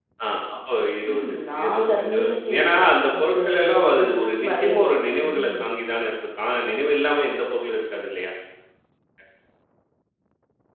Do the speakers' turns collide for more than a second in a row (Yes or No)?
Yes